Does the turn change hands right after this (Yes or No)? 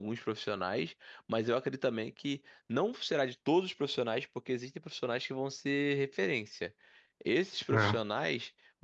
No